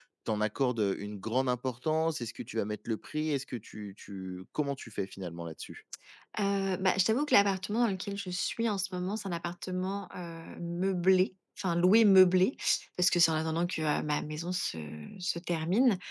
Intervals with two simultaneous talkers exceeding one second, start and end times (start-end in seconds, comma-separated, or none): none